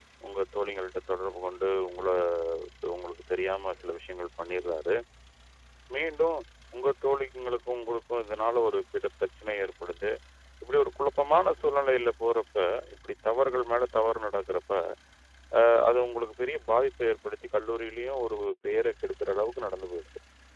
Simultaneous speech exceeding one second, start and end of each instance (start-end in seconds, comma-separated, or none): none